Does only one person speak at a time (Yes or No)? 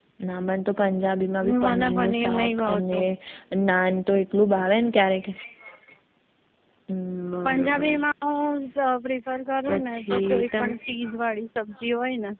No